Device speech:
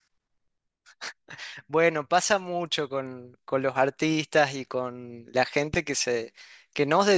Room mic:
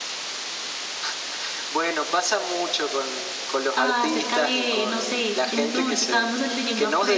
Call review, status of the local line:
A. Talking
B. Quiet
A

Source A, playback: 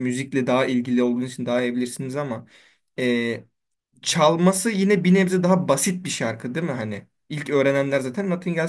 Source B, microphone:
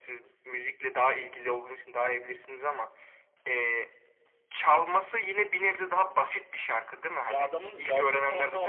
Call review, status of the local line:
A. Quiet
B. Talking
B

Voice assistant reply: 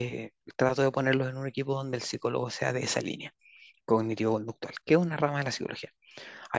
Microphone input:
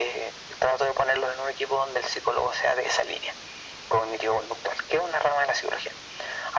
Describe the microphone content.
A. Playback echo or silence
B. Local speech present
A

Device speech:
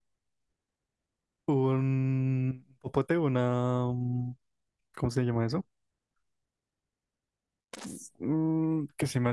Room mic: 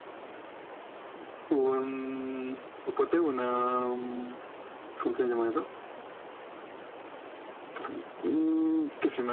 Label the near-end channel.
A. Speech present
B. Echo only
B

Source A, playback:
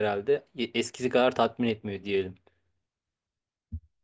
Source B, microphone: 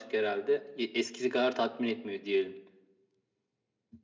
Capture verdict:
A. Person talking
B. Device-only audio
B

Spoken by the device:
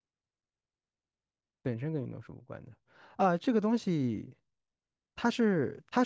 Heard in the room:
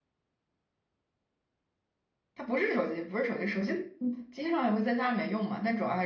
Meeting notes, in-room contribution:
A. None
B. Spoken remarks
B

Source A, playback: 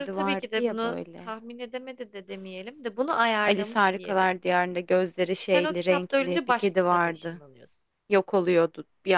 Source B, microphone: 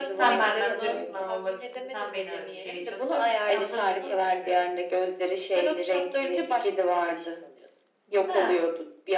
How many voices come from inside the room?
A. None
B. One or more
B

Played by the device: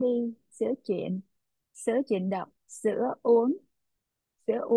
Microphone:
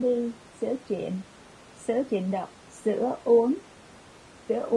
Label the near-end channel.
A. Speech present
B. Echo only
B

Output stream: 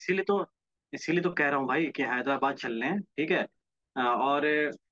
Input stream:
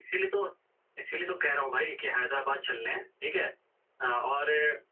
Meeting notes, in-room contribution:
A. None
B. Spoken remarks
A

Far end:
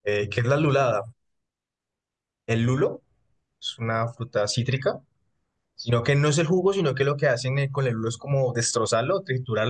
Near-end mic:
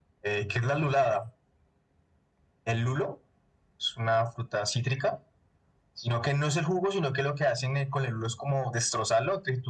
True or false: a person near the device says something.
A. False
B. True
A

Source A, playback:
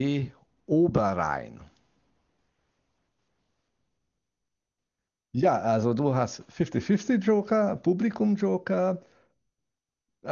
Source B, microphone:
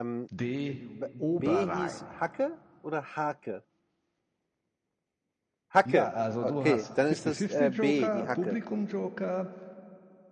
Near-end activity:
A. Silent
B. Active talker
B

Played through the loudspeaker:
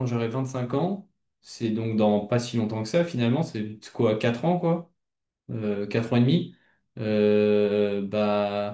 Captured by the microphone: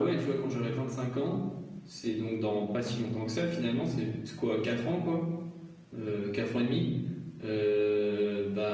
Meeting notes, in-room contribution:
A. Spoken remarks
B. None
B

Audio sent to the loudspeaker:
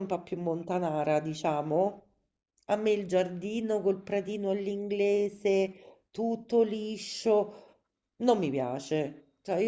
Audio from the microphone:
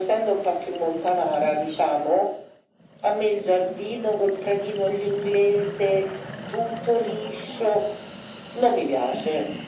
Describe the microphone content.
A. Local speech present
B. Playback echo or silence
B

